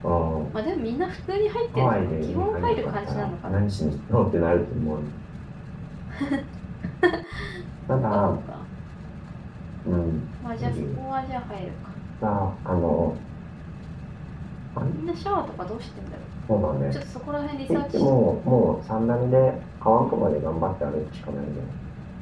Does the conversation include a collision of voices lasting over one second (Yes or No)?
Yes